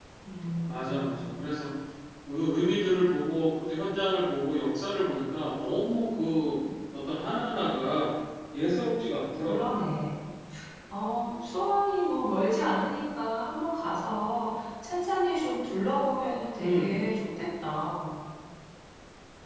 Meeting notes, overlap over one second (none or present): none